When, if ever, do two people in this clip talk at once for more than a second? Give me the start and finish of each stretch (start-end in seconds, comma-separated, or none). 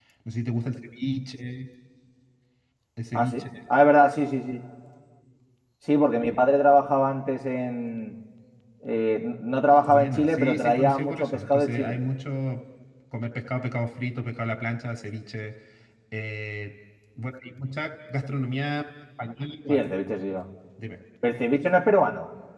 9.9-12.0